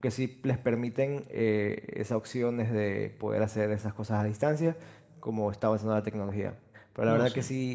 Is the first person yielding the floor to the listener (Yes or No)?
No